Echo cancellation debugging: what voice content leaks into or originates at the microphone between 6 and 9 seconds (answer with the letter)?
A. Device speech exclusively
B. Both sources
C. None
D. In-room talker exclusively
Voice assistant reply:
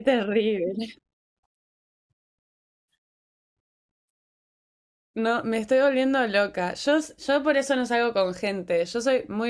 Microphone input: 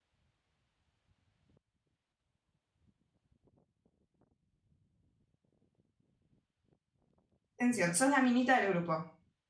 D